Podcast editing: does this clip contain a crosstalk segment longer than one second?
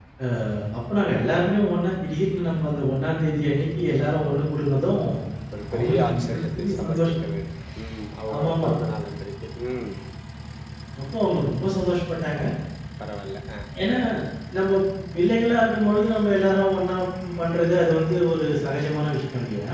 Yes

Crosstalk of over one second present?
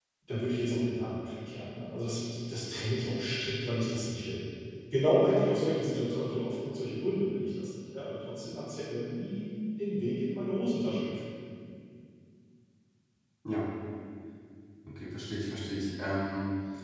No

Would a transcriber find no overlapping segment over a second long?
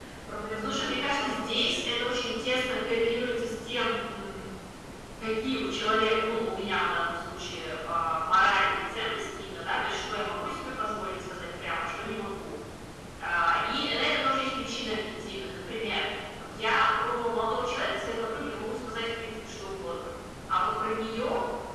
No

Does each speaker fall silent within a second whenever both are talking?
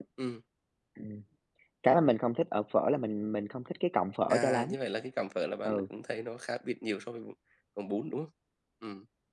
Yes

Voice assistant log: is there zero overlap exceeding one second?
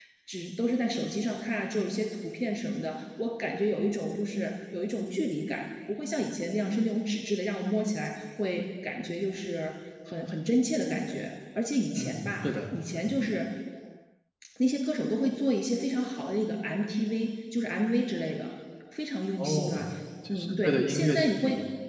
No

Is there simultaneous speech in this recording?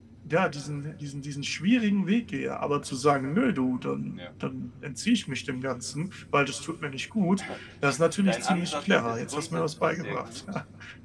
Yes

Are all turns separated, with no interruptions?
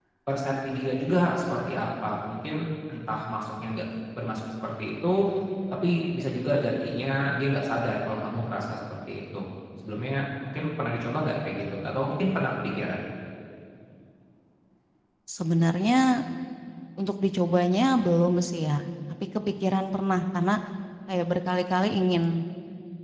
Yes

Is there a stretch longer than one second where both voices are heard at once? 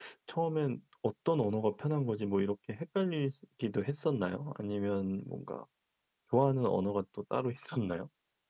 No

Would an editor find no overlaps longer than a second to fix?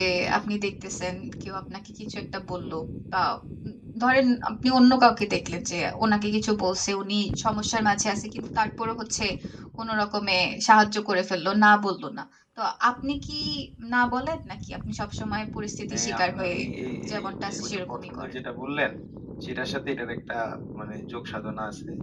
No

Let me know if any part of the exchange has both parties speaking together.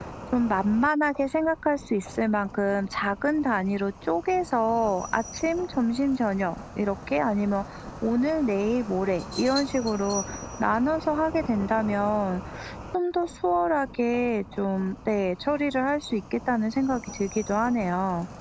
No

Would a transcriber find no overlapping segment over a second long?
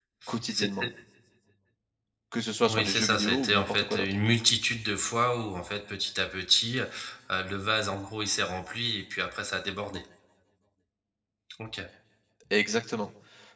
No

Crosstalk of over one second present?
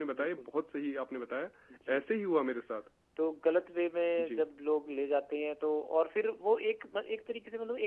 No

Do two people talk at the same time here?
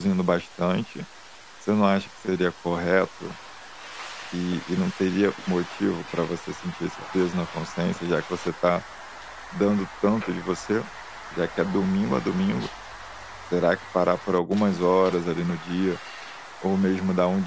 No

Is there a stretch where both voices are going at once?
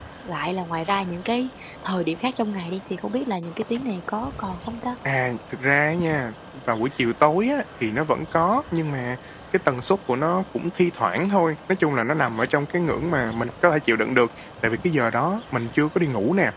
No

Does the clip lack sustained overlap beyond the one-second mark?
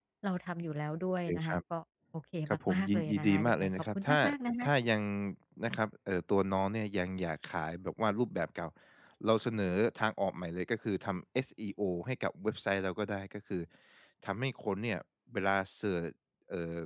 No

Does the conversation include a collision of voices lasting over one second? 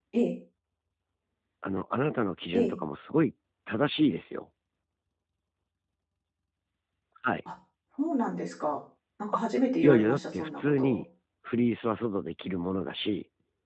Yes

